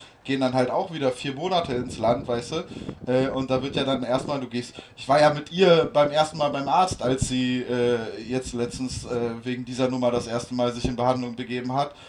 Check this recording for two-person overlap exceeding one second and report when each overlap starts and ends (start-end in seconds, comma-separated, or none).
none